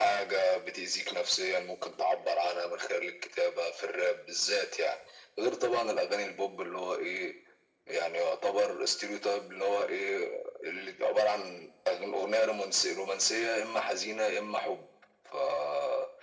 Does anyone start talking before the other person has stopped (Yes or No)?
No